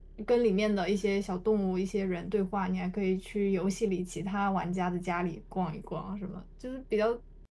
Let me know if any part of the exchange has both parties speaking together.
No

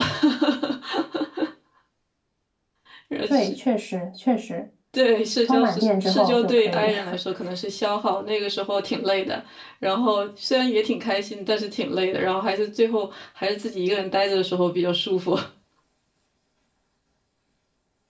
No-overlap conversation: No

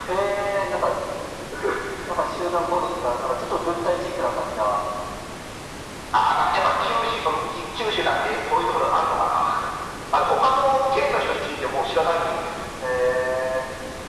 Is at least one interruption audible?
No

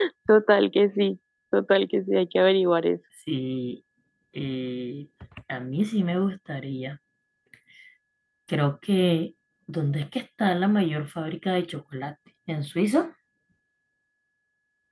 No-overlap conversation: Yes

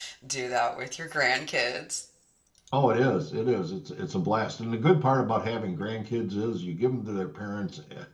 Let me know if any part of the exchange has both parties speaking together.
No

